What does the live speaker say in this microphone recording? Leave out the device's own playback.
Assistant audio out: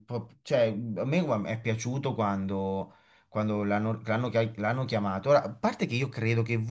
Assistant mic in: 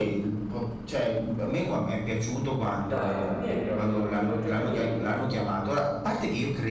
Dai, Tammy Abraham, oh, quello che gioca al Milan.

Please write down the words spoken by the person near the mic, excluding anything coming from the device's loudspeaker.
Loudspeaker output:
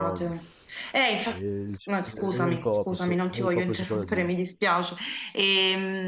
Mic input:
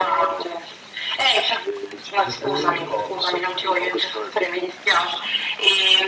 e poi,

